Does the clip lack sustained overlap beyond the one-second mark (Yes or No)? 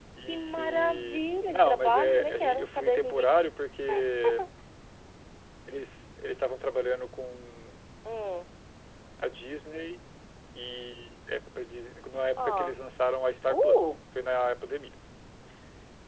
No